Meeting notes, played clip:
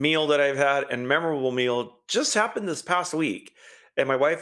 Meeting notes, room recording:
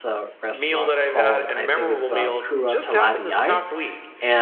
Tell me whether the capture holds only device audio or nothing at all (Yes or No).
No